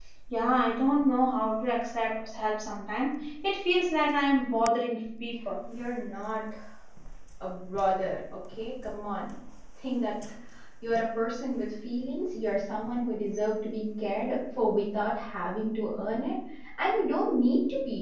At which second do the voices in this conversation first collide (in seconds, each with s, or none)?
none